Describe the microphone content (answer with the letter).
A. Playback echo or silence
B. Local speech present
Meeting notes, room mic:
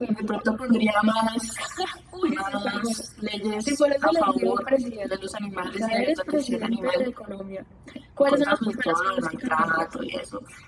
A